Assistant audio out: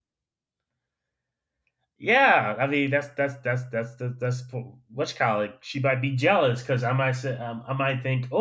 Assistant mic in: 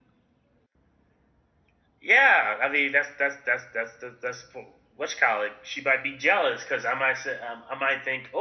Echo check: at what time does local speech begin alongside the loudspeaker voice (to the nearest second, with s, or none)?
none